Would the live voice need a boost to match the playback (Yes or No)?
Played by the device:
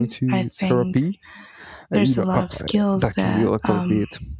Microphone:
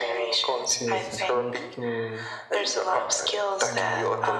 Yes